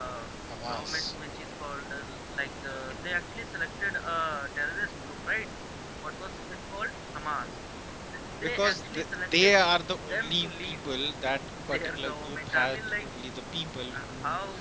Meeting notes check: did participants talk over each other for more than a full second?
Yes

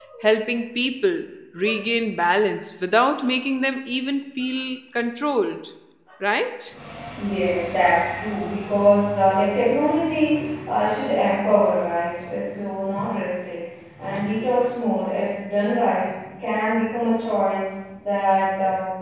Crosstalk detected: No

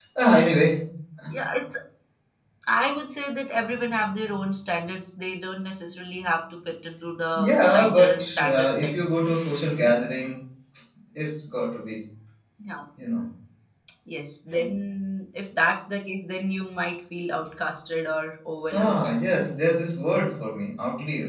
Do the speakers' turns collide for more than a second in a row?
Yes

